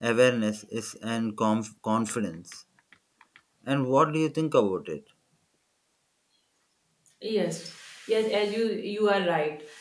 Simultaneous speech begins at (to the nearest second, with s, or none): none